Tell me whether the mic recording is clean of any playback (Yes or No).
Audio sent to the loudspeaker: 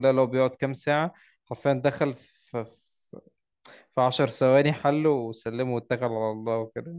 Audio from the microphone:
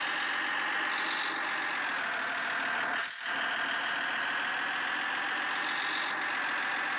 Yes